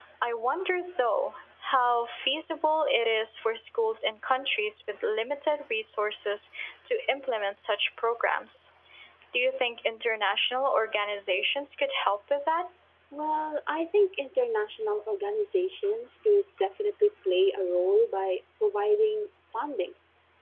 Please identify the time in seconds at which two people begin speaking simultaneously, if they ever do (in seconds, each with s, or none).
none